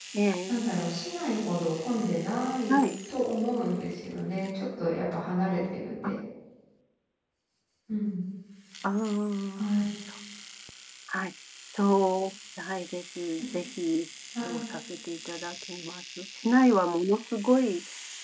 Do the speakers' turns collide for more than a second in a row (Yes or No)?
No